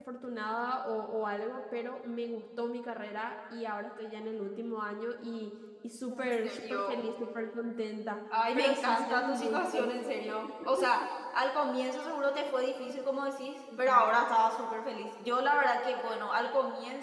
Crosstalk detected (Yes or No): Yes